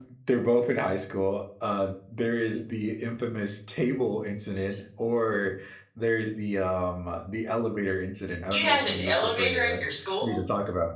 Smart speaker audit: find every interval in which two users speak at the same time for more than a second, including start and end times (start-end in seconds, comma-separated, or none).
8.5-9.8